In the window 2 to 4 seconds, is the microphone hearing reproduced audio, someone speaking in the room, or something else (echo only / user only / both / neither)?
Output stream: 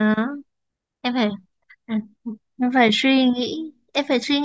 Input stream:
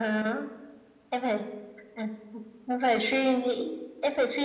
echo only